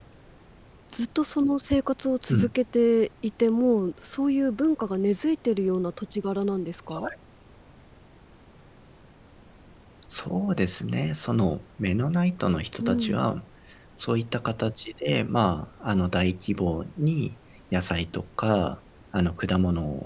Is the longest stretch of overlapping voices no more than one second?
Yes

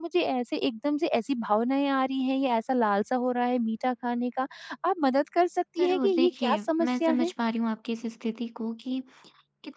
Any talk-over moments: Yes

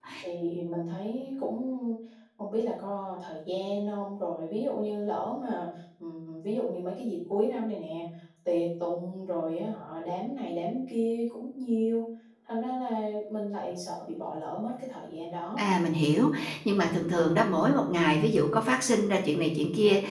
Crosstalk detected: No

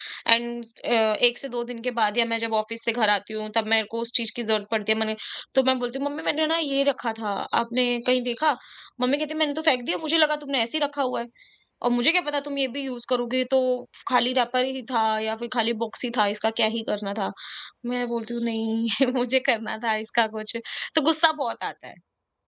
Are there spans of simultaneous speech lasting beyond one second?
No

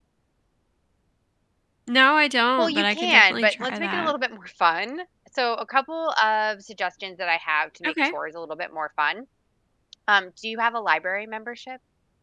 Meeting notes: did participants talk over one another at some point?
Yes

